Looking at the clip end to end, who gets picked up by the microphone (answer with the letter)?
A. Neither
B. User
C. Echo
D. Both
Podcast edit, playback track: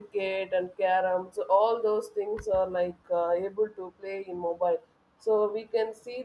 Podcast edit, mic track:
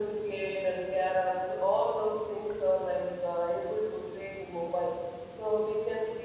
C